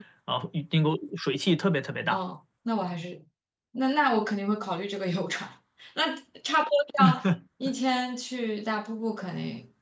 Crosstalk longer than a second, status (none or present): none